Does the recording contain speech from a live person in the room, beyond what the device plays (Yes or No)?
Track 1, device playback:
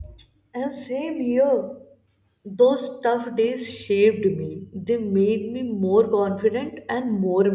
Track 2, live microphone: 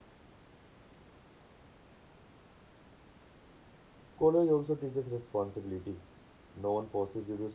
Yes